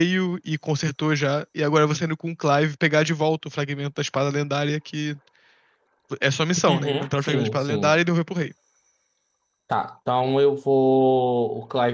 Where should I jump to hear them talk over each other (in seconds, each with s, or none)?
6.7 s